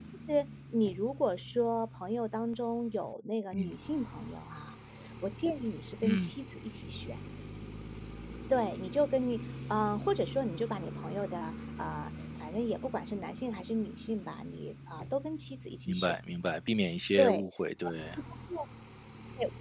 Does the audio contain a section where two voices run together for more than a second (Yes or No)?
No